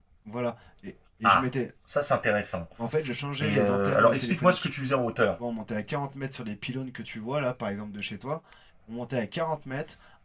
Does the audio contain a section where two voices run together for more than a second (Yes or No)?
Yes